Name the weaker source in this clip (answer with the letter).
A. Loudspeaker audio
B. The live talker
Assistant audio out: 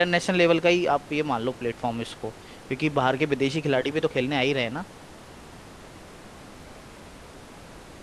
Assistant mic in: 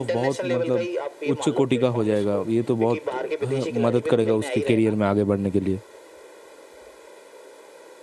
A